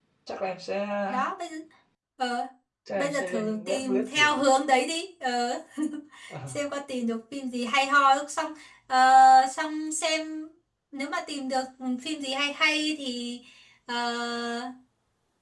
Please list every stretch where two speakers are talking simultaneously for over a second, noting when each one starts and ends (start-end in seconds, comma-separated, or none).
3.0-4.4